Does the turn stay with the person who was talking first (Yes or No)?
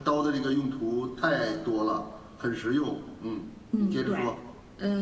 No